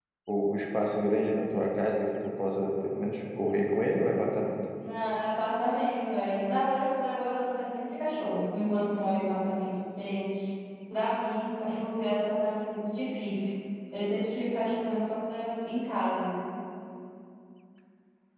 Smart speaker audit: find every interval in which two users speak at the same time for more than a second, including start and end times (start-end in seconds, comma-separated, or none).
none